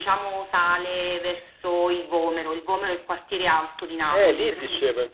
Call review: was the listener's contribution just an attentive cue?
No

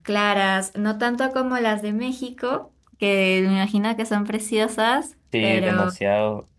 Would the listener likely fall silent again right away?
No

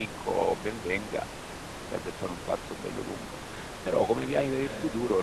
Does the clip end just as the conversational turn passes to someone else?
No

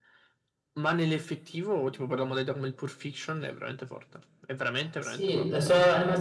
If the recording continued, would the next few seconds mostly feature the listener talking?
Yes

